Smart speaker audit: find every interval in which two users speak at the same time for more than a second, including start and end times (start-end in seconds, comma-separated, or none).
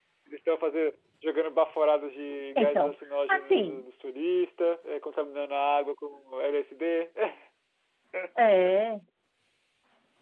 2.6-3.8